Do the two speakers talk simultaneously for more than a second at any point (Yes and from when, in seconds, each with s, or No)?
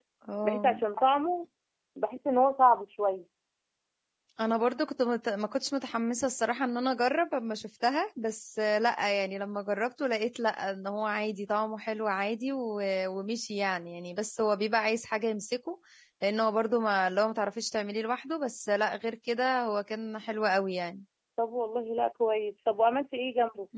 No